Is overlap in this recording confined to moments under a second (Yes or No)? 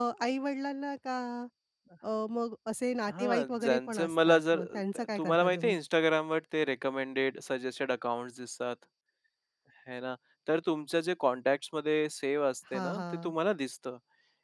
No